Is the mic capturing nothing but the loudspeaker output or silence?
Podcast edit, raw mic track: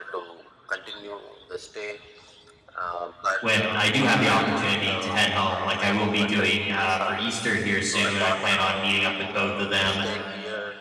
No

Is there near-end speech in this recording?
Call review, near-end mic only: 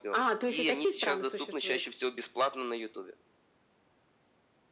No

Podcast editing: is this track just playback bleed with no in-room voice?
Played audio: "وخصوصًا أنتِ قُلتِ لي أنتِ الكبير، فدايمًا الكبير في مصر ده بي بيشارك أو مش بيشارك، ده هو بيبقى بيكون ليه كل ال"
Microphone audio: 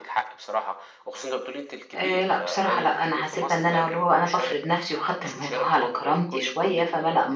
No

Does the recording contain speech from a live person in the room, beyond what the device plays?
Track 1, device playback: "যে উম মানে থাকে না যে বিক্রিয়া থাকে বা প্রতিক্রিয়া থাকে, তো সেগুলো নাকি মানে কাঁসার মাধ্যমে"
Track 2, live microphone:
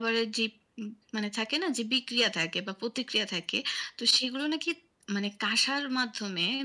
No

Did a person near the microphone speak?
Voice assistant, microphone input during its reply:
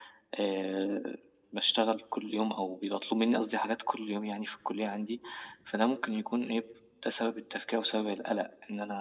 No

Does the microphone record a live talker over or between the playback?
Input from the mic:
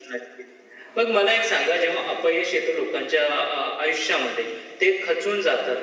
No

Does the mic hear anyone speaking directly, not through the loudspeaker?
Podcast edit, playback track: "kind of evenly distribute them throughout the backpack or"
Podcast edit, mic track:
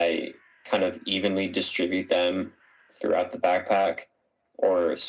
No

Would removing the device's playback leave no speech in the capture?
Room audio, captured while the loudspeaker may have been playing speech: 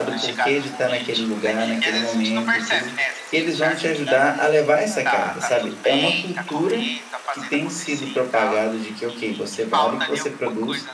No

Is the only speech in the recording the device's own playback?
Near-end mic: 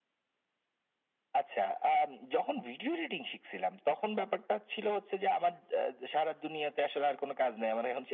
Yes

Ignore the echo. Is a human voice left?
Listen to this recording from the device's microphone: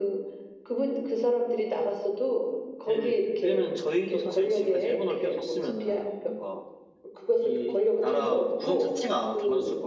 Yes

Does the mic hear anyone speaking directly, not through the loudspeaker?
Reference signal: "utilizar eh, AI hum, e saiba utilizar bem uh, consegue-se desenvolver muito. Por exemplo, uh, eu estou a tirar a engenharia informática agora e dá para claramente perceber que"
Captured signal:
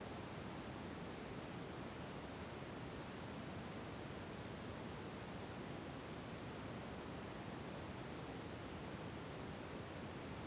No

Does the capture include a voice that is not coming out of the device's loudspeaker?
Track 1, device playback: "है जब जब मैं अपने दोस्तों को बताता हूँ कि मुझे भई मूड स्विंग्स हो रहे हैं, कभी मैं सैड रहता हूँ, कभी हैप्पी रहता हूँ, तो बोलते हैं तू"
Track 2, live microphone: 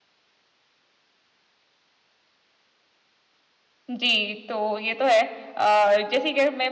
Yes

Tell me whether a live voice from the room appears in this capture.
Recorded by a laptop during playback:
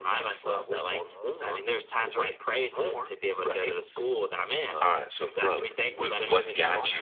Yes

